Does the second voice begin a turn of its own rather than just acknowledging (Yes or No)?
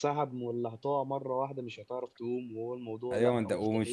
Yes